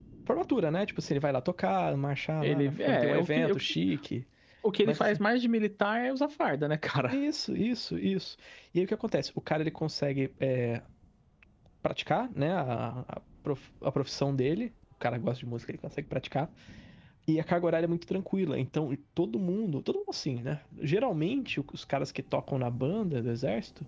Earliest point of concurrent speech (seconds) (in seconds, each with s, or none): 2.4 s